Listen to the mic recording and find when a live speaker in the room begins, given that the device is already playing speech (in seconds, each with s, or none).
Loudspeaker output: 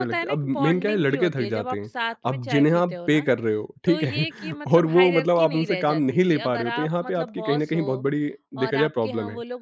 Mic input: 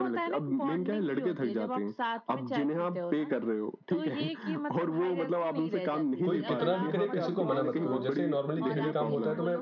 6.2 s